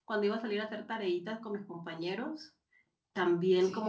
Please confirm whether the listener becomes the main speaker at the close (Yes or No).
No